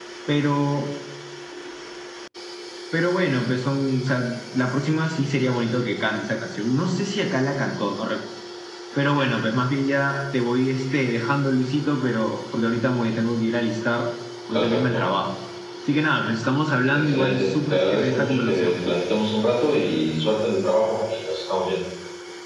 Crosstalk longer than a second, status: present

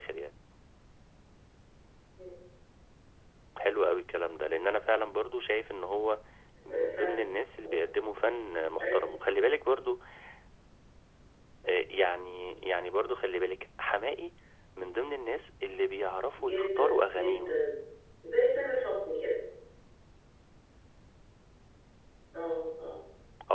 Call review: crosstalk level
present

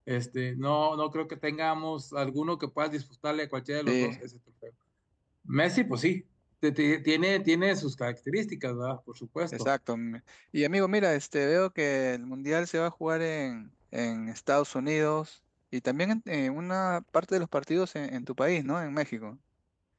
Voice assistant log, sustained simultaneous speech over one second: none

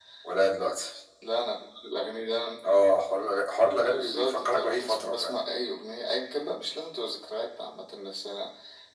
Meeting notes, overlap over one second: present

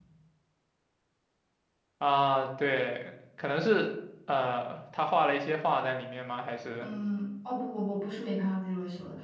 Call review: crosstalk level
none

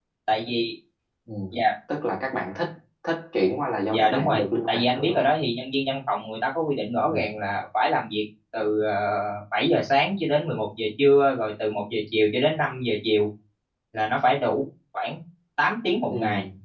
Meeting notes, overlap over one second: present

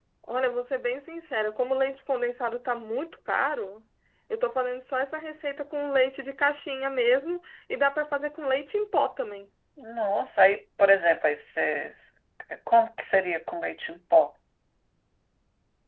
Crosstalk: none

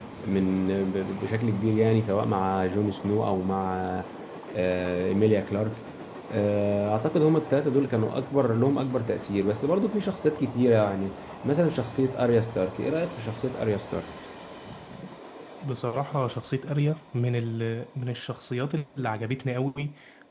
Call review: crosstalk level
none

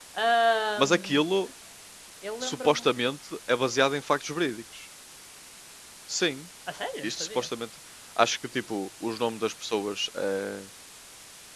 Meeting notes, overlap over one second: none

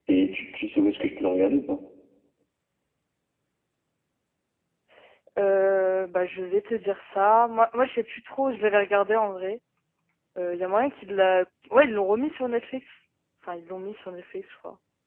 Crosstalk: none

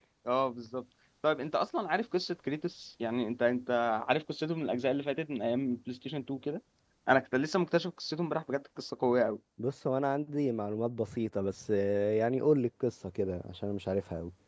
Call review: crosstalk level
none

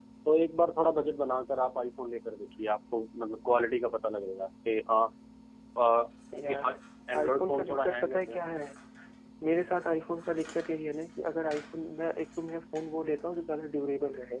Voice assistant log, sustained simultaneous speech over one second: present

